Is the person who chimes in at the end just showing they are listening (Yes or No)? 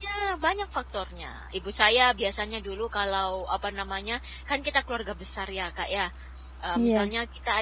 Yes